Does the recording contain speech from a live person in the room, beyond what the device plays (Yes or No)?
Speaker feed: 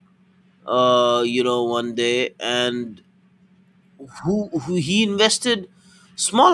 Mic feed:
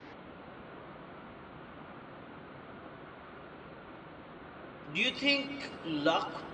Yes